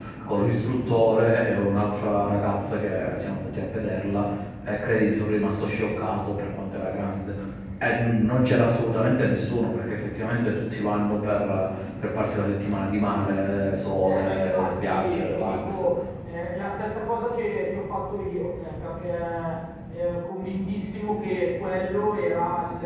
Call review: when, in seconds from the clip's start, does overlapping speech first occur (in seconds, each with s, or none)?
14.0 s